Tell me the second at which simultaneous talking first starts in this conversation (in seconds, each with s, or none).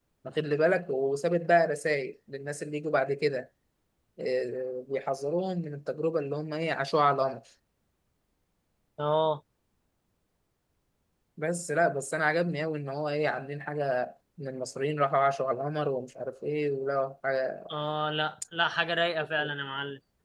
none